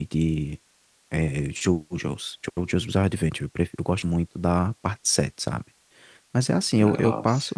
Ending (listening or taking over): listening